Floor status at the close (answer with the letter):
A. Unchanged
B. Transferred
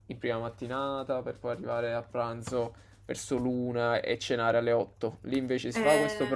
A